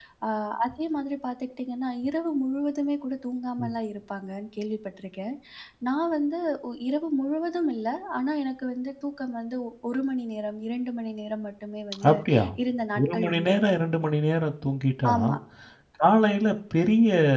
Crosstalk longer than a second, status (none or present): none